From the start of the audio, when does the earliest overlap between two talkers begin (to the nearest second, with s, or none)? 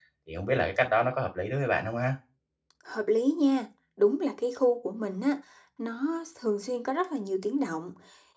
none